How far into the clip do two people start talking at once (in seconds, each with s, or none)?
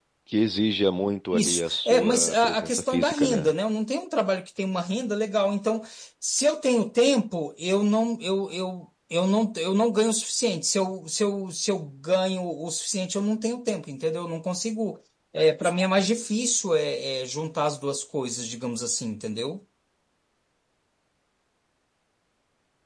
1.3 s